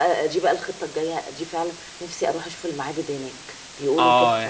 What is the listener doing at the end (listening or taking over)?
taking over